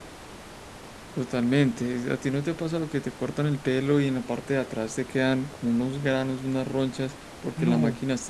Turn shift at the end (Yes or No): No